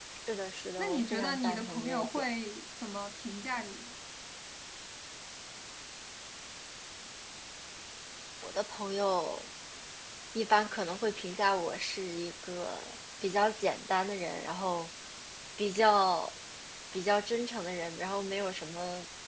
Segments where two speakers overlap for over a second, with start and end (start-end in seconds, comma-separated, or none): 0.8-2.3